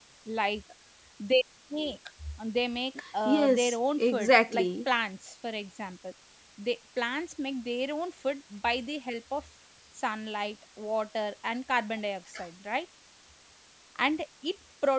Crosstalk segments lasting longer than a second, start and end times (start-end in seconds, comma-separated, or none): 3.2-4.7